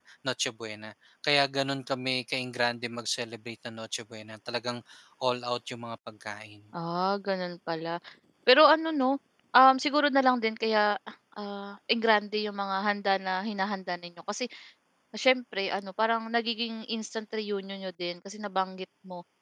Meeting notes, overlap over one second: none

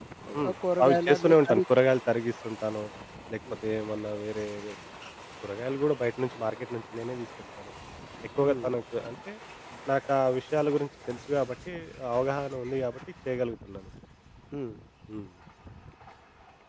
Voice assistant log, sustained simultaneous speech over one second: present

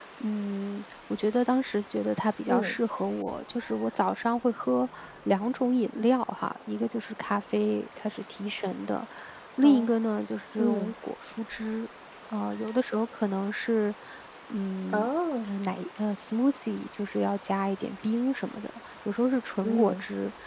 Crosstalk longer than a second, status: none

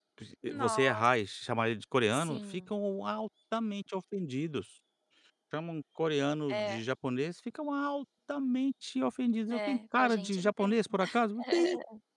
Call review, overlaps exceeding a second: present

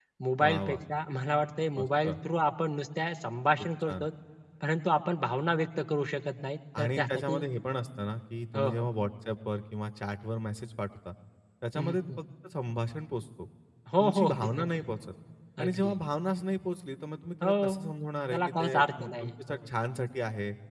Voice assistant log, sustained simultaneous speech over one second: present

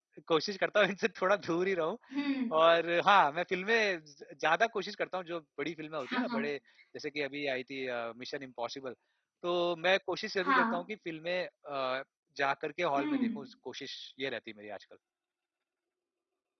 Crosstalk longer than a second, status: none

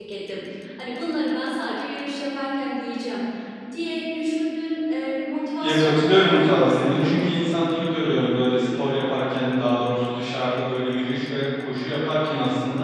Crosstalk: present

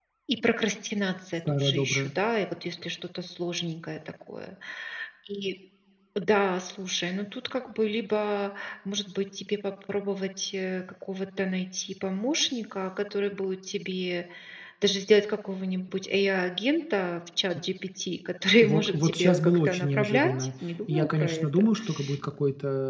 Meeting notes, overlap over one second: present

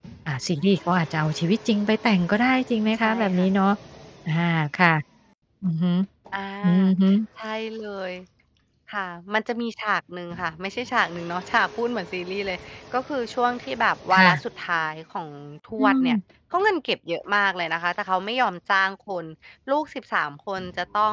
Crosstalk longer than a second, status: none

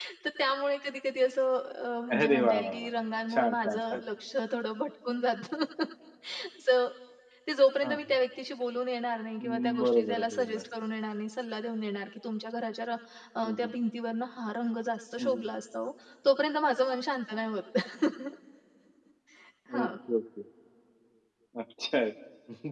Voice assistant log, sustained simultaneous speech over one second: present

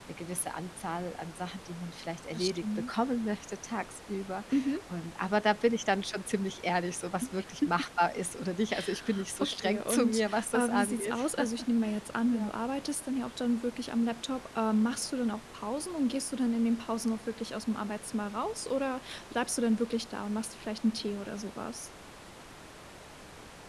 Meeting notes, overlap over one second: present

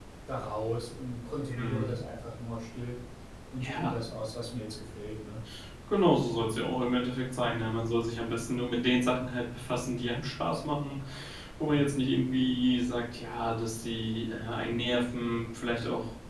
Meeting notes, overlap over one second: none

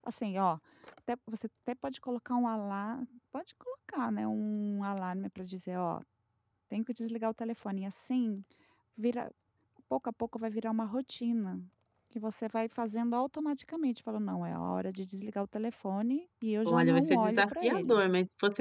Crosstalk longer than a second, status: present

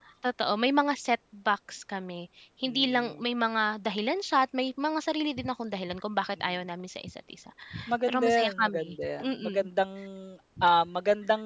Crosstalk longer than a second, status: present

